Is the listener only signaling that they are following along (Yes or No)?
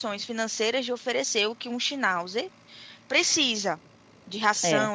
Yes